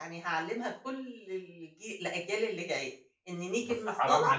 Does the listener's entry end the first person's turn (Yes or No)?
Yes